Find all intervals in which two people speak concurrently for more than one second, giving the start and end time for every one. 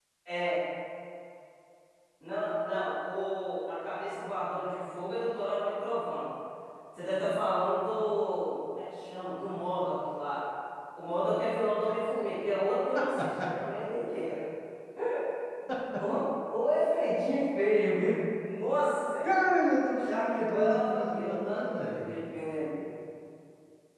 20.0-22.1

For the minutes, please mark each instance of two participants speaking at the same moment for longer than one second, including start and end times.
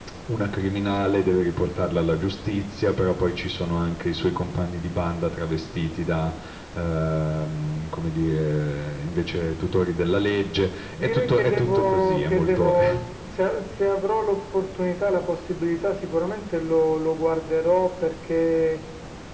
11.0-12.7

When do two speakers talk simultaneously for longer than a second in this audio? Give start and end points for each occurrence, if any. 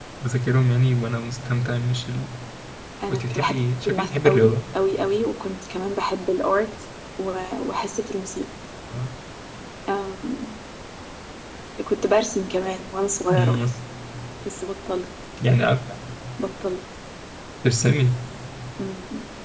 3.1-4.5

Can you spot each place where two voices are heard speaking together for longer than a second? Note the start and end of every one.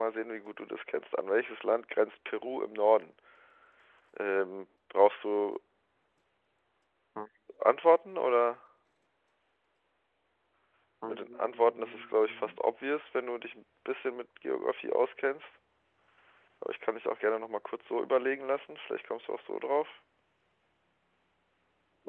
11.1-12.5

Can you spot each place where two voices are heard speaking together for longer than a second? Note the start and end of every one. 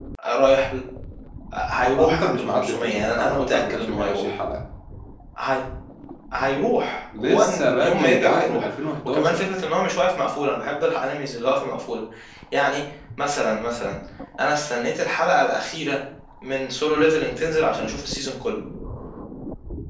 1.7-4.4, 7.2-8.7

